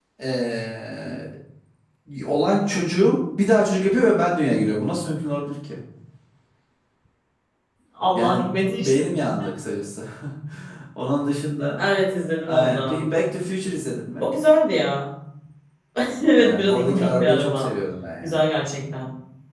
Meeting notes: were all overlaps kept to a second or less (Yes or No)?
No